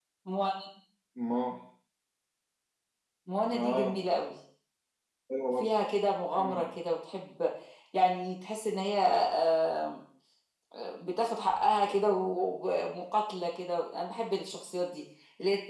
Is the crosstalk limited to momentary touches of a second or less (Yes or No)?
Yes